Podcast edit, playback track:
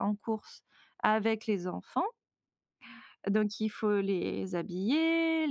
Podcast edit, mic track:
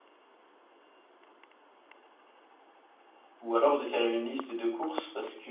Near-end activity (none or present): present